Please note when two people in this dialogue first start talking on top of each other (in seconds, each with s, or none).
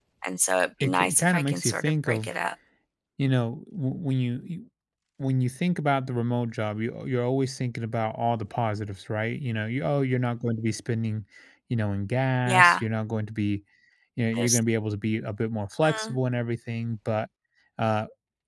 0.8 s